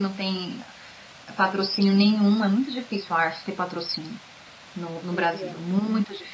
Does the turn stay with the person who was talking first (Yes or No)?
Yes